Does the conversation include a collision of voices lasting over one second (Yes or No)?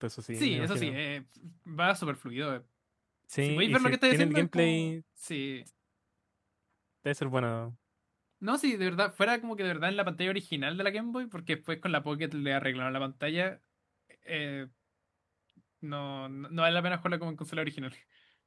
Yes